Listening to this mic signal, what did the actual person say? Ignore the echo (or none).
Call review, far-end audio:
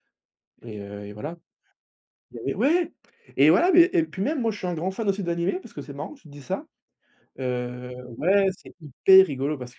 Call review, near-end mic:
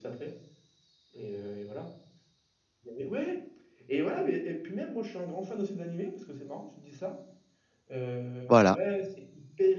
Voilà.